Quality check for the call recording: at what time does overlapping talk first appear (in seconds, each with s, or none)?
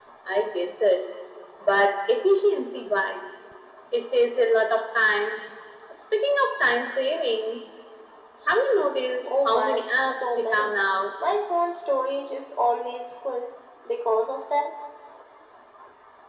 9.2 s